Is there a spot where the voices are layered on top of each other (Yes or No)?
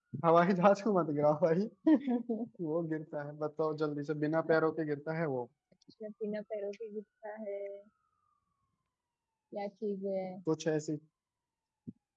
No